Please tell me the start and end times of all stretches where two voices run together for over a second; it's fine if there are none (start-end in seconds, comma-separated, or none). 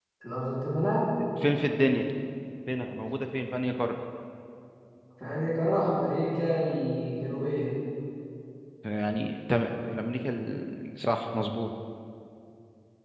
none